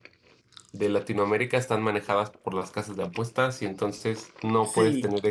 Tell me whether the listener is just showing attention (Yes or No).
Yes